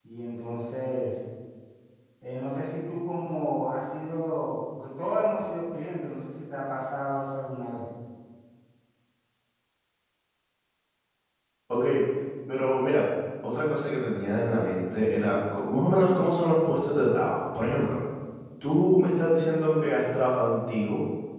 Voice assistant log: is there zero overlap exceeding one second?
Yes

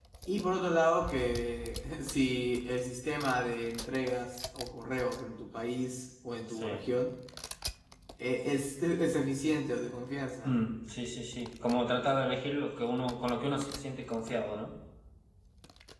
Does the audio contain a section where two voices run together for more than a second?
No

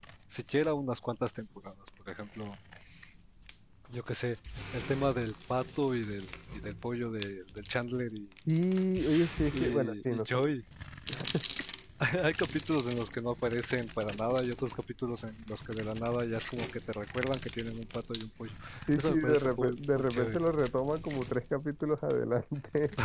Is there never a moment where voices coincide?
No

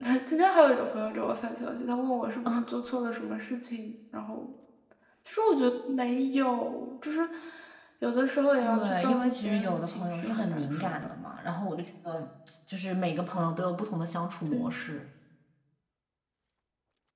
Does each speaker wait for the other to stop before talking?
No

